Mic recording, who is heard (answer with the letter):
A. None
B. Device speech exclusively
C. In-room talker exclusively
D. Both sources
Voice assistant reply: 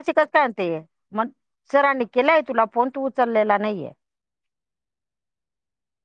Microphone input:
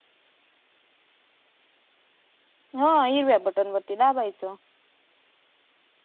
C